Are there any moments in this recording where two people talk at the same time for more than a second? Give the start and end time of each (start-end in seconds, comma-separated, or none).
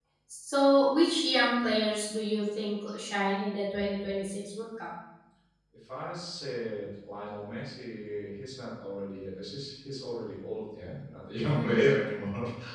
none